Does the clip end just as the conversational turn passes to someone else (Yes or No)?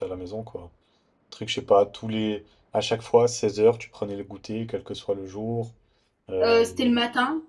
Yes